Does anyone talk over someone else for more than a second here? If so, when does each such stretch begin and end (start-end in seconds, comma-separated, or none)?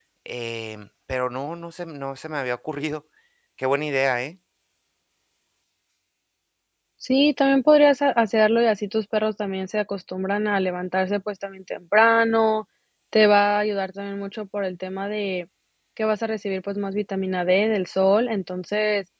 none